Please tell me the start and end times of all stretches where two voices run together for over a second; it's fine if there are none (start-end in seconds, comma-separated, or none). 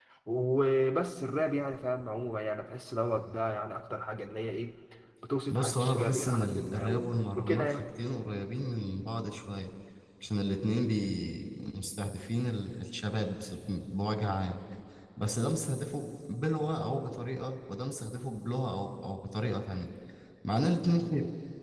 5.5-7.8